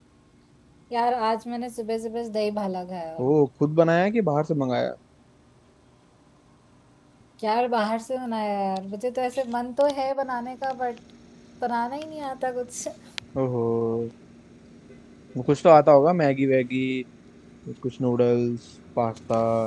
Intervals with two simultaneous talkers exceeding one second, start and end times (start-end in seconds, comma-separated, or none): none